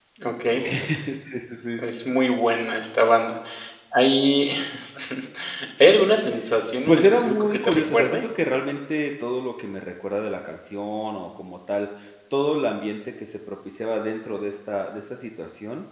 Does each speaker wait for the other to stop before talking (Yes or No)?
No